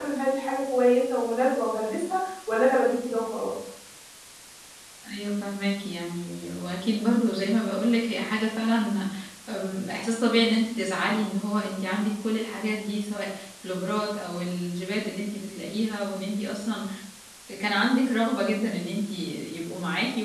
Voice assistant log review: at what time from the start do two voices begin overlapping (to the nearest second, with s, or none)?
none